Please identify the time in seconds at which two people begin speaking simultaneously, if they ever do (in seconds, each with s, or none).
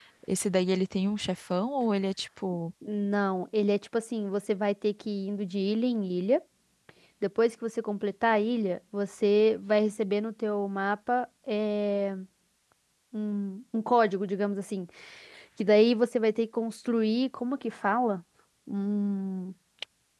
none